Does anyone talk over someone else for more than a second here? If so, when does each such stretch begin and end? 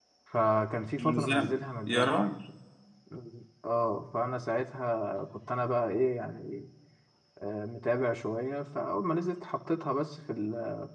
1.0-2.2

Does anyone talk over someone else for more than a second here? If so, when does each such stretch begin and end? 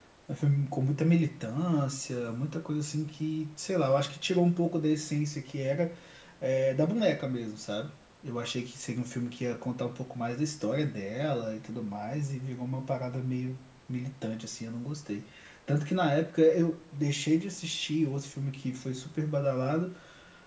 none

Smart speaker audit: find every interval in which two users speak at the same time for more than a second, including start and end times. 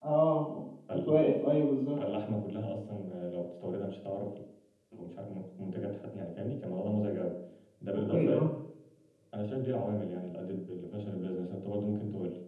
none

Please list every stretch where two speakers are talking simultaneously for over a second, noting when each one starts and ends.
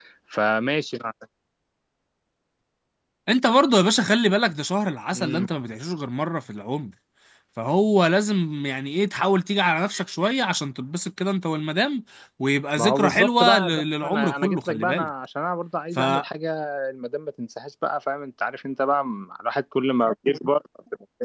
12.8-15.1

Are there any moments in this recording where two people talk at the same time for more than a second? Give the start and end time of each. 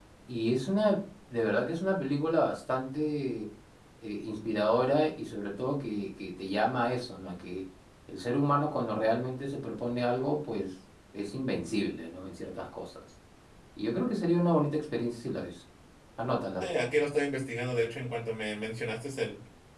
none

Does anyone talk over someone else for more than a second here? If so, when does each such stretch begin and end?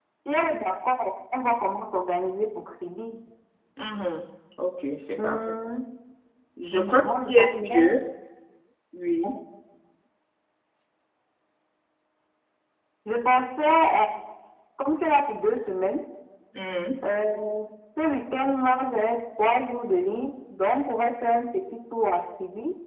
6.7-8.0

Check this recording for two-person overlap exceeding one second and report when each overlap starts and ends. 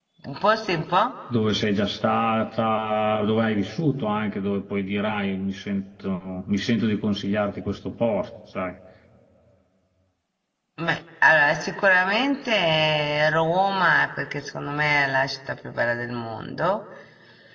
none

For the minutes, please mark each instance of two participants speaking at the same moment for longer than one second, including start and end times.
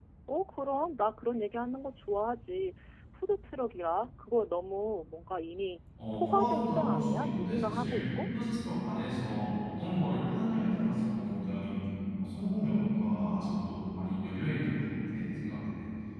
6.1-8.0

